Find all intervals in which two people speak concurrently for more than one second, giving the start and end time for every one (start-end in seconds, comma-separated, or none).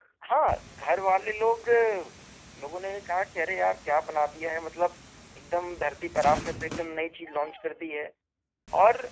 none